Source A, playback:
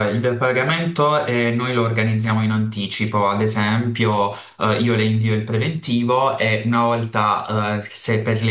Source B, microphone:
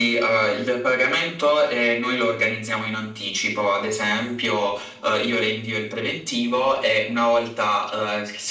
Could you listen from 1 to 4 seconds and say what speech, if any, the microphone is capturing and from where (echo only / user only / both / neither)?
echo only